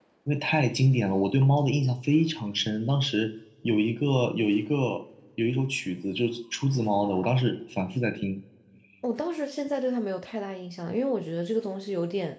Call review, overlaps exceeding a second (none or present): none